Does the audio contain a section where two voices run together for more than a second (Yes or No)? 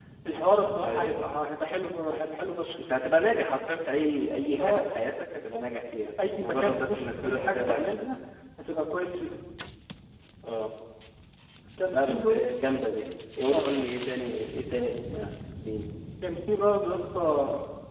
Yes